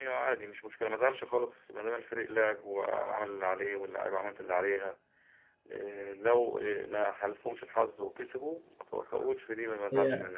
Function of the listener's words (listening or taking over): taking over